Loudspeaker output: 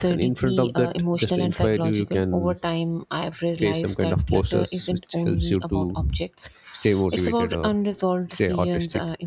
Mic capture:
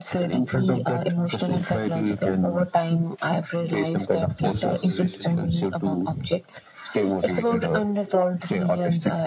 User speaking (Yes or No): Yes